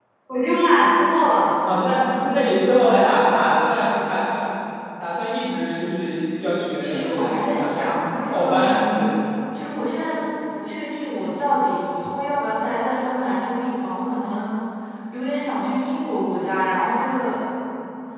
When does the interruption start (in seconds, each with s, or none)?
6.8 s